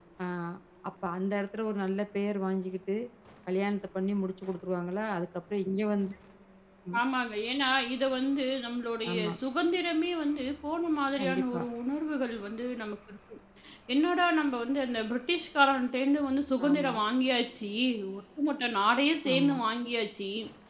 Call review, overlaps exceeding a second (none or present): none